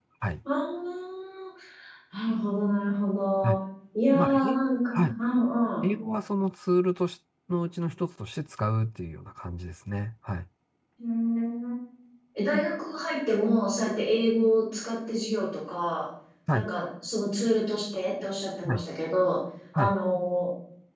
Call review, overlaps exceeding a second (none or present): none